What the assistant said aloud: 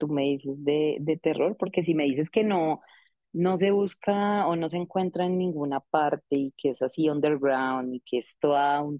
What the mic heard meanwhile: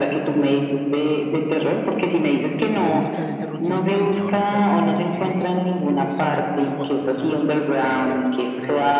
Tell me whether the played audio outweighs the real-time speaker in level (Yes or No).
Yes